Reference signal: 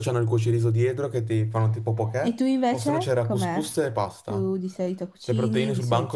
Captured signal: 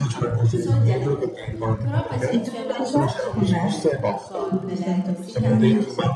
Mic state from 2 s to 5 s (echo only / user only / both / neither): both